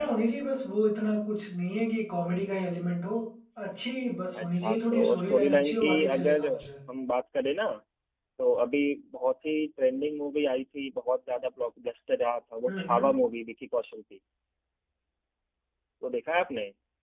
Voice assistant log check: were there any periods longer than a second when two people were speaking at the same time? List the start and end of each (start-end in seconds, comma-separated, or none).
4.4-6.4